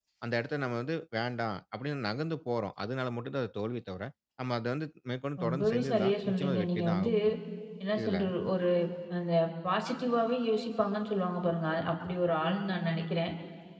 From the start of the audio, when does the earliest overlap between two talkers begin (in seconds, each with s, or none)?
5.4 s